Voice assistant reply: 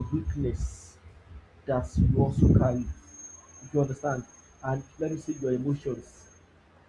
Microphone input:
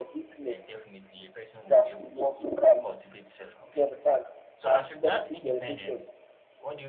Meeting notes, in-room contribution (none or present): present